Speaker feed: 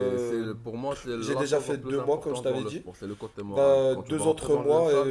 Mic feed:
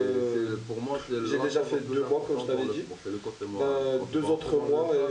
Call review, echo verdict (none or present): present